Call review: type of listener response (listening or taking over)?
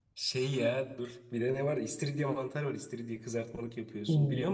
taking over